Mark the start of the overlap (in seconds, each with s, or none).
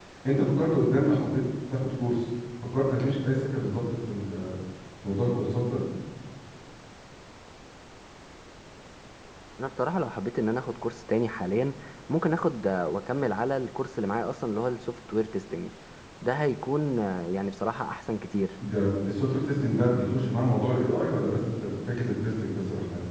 none